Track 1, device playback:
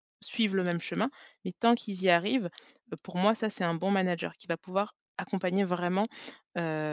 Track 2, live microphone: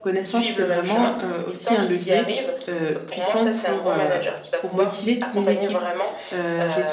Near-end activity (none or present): present